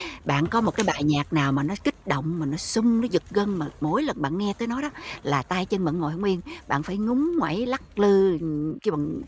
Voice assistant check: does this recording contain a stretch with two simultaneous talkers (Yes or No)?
No